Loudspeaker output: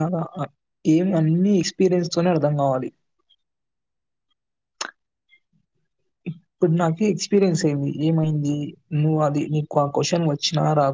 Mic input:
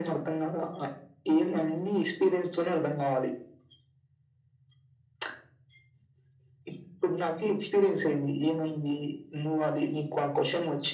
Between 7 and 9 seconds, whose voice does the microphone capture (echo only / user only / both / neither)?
echo only